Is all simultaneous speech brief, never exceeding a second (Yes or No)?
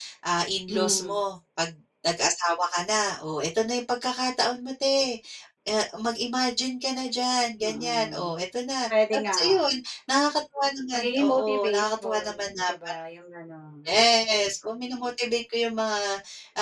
No